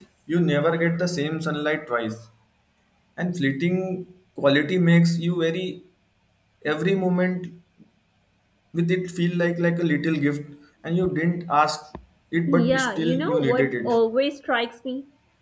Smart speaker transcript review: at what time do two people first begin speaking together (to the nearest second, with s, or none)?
12 s